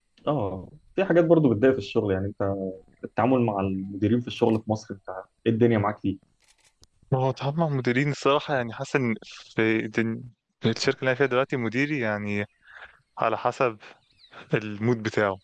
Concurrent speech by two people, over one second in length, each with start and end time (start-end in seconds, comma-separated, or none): none